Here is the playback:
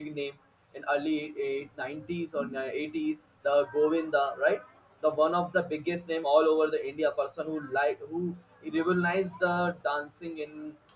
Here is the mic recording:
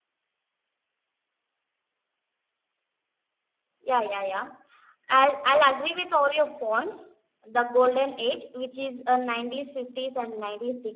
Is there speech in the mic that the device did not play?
Yes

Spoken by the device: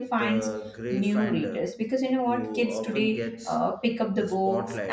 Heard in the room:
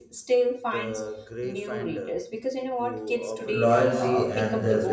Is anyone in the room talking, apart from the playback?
Yes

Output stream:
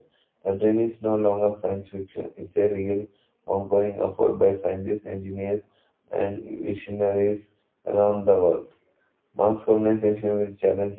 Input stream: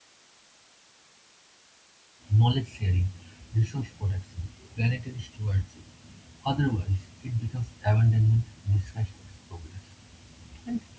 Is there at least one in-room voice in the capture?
Yes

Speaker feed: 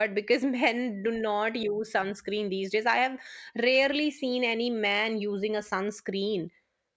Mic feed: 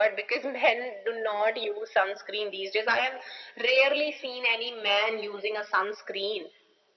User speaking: No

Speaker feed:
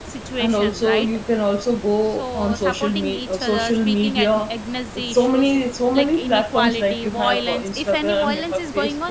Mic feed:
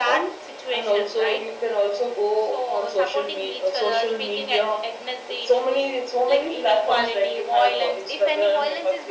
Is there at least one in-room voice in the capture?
No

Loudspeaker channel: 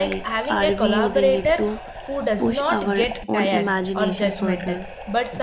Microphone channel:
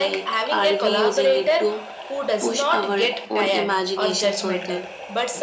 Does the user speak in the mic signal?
No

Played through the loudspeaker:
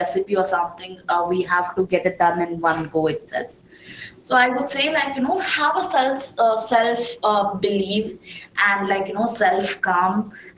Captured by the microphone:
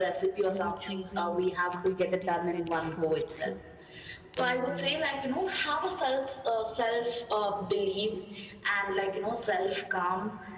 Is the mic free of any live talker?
No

